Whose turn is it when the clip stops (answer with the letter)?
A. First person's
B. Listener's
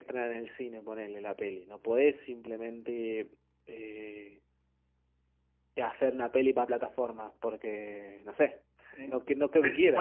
B